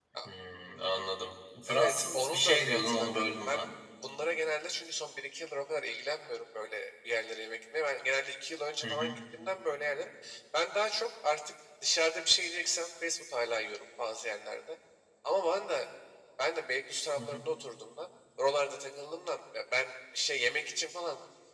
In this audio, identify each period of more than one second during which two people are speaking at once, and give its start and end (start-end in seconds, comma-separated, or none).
1.7-3.7